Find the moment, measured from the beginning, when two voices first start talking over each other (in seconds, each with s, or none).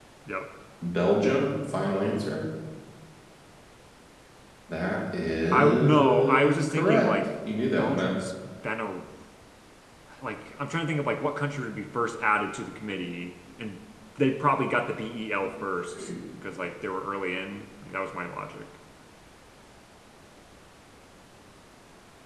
5.5 s